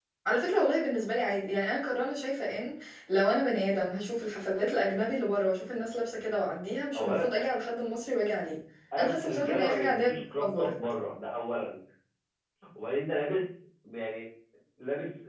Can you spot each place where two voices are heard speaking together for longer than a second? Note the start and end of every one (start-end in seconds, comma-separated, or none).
9.0-10.8